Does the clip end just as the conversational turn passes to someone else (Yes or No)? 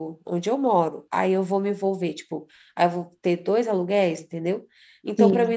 No